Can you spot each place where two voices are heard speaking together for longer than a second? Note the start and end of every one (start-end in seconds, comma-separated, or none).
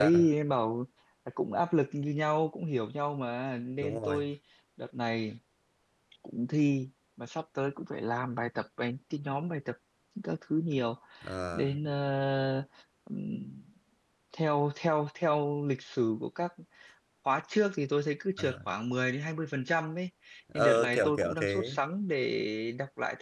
20.5-21.8